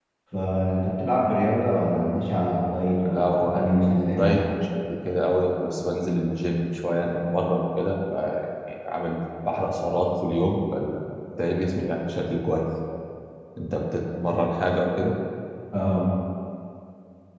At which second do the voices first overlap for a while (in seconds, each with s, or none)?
3.0 s